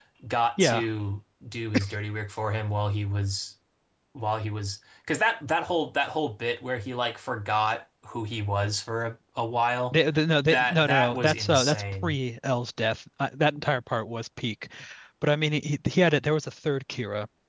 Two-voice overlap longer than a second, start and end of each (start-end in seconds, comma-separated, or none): 10.5-12.2